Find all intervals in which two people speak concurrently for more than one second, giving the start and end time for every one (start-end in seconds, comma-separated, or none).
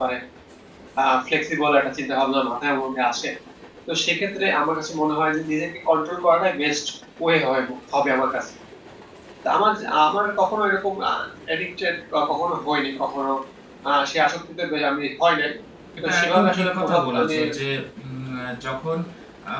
16.0-17.3